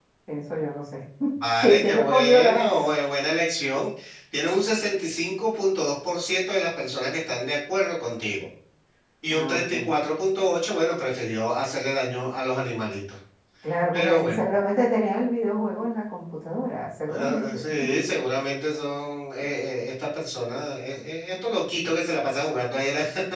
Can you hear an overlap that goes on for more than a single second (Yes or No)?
Yes